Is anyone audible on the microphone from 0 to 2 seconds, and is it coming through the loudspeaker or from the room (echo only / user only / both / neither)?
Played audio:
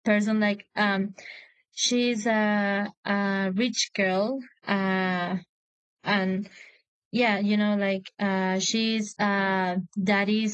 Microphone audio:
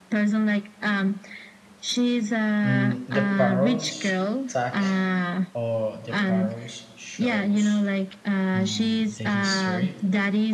echo only